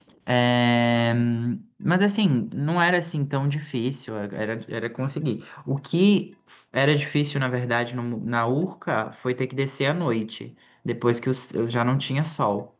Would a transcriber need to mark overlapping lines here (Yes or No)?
No